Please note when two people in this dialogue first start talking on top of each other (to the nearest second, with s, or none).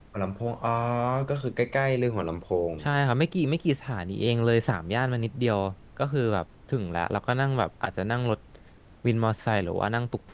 none